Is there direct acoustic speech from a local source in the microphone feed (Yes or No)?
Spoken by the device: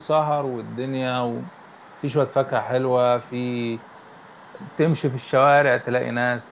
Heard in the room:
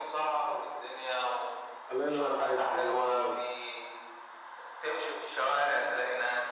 Yes